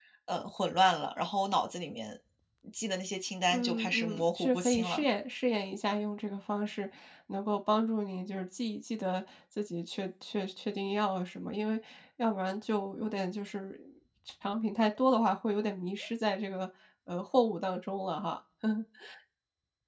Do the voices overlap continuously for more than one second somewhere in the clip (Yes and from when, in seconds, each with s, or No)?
Yes, from 3.5 s